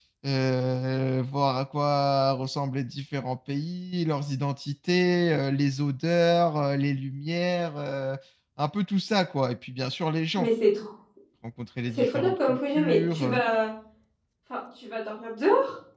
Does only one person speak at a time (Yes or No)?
No